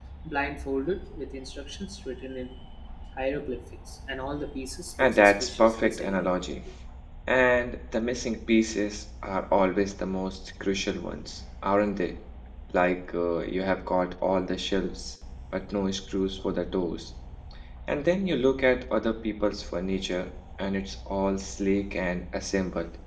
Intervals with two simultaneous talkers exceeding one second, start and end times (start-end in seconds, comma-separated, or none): 5.0-6.2